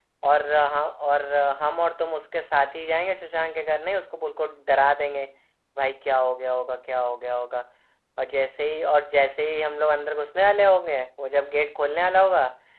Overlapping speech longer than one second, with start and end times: none

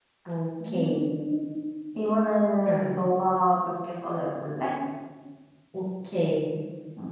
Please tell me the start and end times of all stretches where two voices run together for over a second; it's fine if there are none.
none

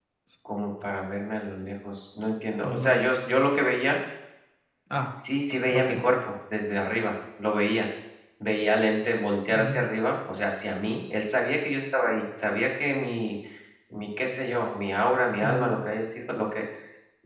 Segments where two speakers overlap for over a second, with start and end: none

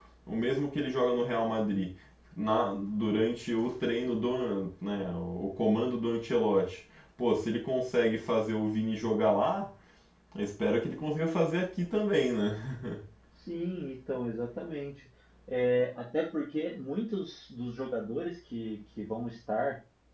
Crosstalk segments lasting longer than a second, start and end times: none

